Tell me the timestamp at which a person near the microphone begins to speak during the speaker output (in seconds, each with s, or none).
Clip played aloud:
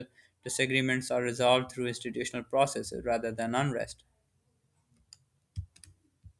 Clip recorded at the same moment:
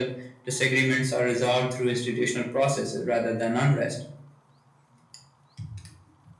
none